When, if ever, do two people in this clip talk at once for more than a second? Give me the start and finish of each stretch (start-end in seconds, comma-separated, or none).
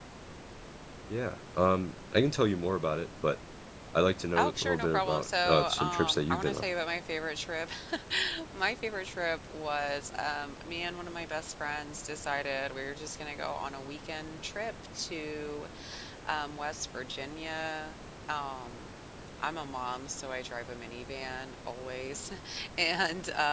4.4-6.6